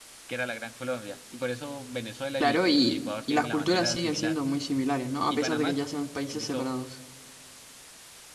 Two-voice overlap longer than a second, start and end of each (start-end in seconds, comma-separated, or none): 2.4-4.3